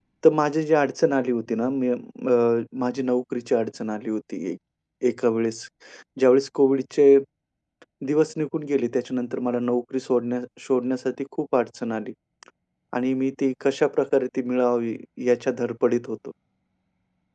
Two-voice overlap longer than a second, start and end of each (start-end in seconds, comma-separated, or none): none